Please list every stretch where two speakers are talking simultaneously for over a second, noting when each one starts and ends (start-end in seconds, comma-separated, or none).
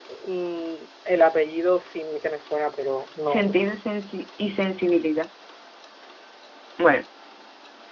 none